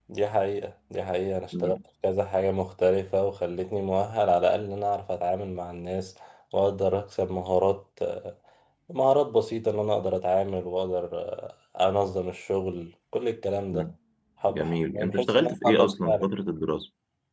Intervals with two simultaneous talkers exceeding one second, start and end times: 14.5-16.2

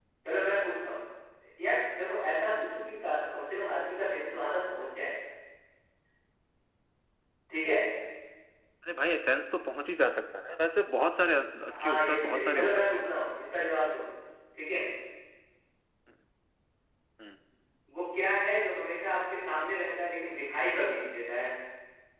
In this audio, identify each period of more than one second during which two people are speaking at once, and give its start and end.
11.7-13.1

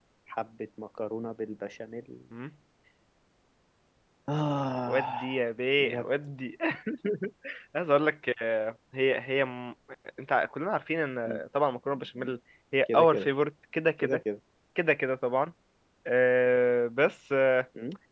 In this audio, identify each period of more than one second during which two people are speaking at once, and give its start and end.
none

